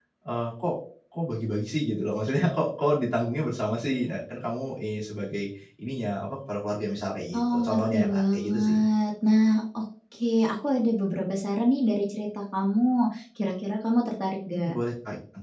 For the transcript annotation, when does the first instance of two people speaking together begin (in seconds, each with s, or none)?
7.3 s